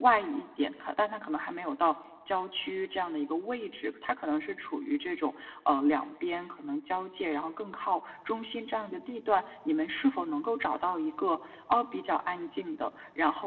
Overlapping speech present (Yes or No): No